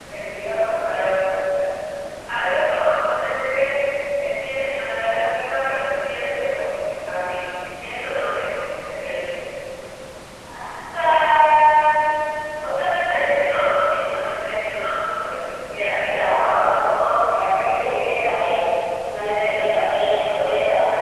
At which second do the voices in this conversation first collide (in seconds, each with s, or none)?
16.0 s